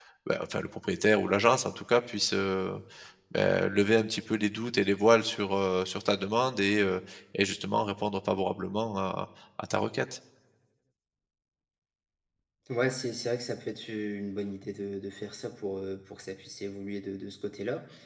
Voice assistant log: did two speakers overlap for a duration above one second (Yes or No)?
No